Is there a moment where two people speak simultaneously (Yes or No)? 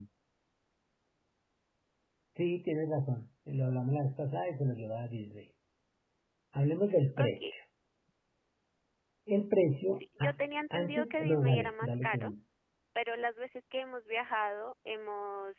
Yes